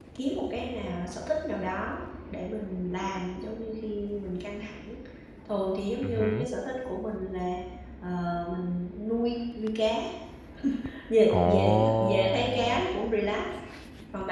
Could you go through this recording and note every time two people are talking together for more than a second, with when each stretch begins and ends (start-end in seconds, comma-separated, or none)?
11.3-12.9